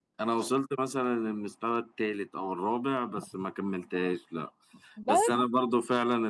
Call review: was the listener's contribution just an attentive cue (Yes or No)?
Yes